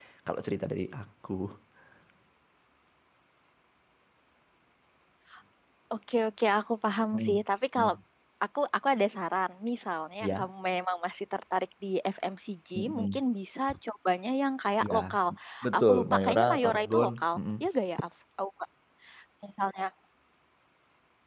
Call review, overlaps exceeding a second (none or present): present